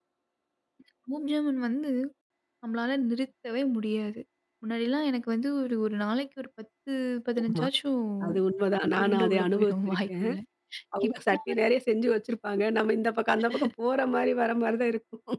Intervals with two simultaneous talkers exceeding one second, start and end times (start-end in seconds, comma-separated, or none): 9.0-10.3